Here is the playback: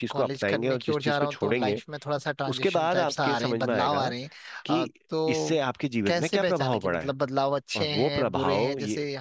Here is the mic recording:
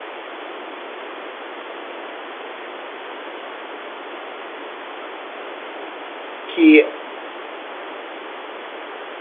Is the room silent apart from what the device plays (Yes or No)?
No